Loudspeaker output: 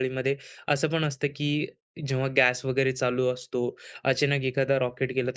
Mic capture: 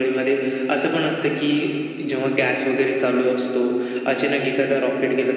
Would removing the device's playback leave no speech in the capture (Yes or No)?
Yes